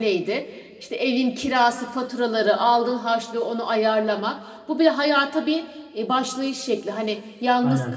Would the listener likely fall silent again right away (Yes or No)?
Yes